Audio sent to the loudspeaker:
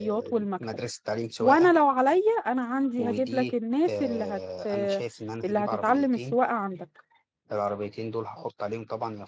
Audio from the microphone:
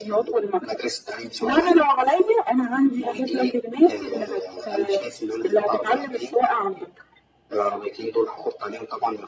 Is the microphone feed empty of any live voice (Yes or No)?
Yes